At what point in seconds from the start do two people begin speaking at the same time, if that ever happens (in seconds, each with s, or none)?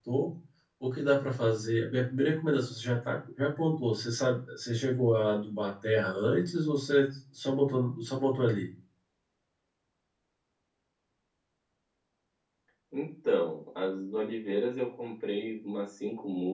none